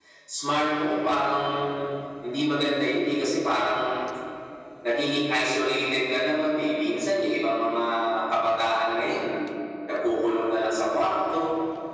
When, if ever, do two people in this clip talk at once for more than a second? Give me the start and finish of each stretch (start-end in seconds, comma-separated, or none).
none